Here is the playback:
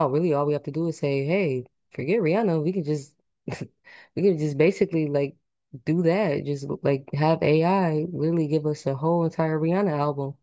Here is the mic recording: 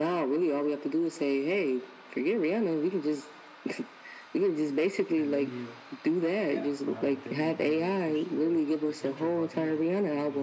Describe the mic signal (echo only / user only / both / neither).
both